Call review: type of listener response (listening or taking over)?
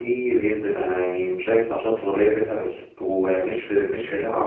listening